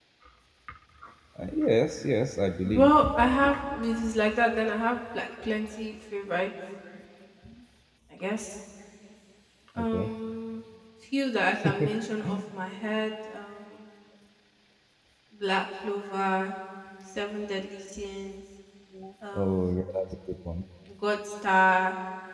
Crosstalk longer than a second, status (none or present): none